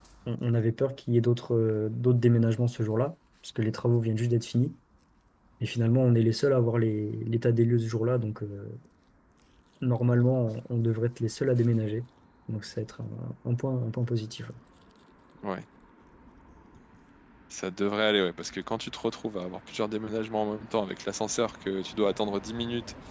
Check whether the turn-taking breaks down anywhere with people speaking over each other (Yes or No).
No